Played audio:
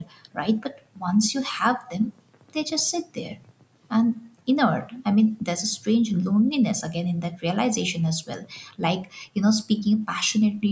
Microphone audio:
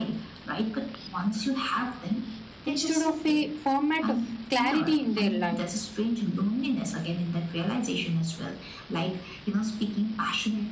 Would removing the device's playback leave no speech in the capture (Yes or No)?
No